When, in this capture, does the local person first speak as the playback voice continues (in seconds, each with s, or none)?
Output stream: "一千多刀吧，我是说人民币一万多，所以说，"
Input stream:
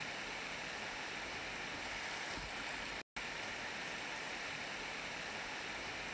none